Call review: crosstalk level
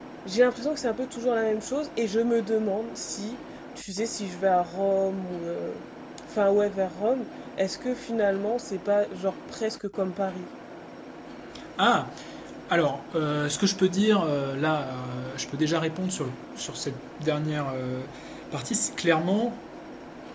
none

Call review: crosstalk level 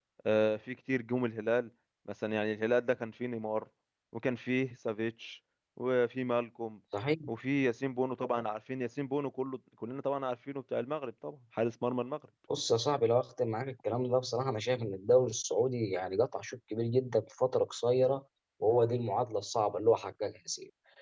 none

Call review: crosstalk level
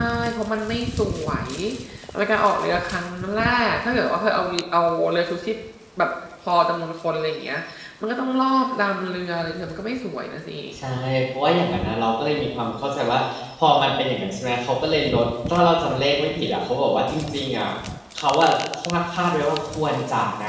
none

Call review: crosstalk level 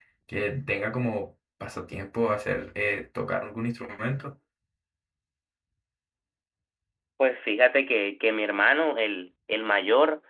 none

